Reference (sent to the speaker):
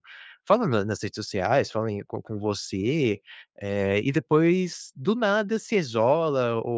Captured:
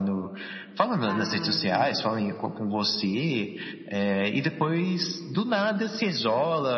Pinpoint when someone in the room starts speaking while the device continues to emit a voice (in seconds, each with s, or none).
1.0 s